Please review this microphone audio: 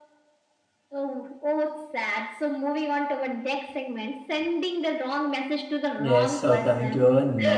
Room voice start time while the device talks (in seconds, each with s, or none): 5.9 s